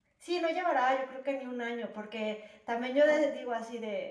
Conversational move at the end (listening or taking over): listening